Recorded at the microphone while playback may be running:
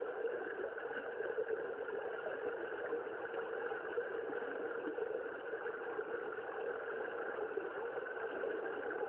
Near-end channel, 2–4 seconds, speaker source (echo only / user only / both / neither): neither